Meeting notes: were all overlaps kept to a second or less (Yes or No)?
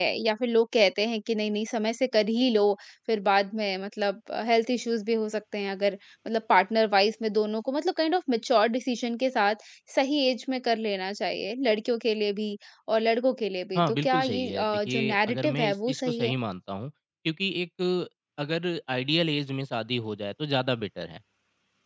No